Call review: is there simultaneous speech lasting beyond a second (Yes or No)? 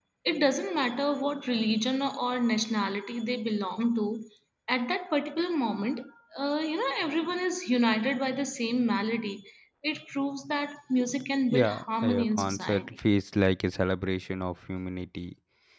Yes